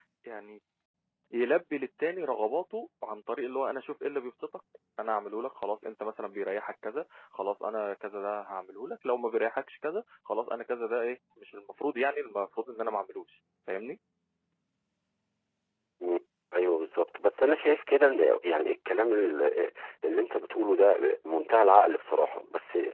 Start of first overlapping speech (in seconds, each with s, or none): none